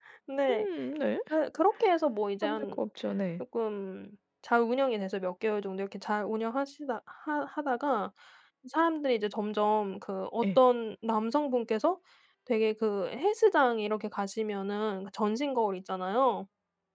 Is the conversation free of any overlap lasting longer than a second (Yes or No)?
Yes